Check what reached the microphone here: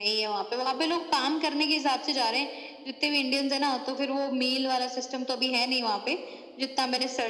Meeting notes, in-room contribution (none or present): none